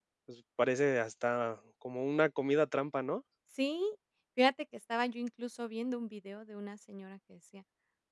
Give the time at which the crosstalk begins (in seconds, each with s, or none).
none